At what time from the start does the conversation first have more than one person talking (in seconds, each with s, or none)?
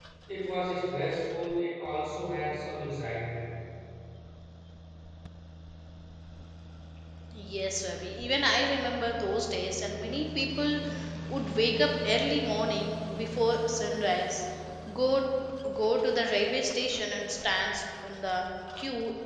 none